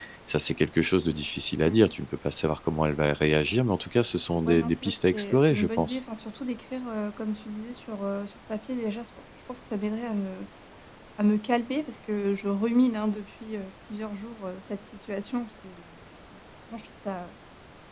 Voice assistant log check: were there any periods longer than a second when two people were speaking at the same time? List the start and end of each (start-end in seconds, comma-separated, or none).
4.5-6.0